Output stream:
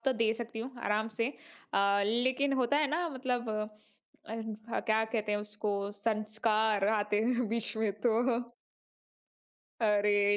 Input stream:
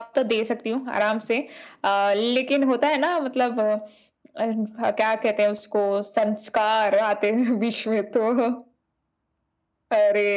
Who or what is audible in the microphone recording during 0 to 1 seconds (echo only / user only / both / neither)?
echo only